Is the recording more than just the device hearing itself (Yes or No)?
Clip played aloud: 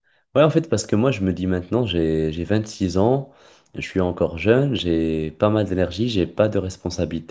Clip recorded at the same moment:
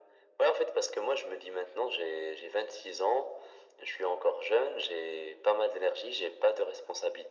No